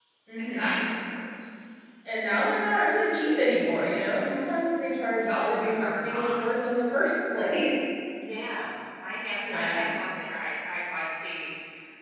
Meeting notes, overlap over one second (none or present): present